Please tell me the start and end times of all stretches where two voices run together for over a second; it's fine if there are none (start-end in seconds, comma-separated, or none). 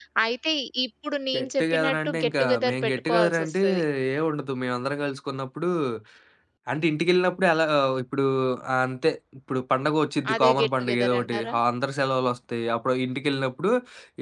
1.4-3.6, 10.3-11.6